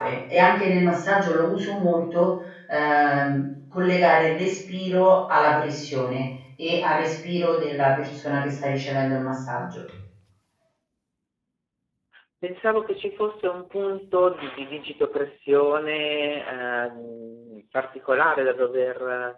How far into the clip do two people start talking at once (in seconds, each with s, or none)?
none